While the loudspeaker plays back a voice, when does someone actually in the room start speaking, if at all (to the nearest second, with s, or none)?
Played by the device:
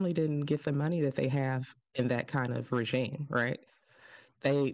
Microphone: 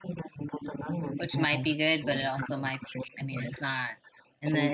1 s